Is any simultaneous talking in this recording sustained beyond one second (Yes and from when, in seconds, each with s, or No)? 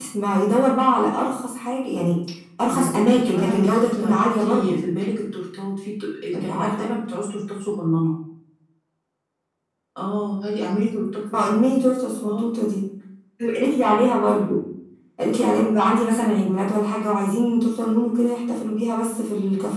Yes, from 2.7 s